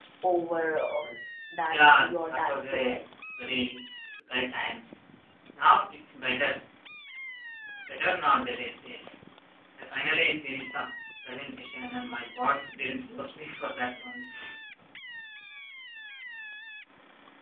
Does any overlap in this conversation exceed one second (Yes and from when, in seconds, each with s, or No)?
Yes, from 1.7 s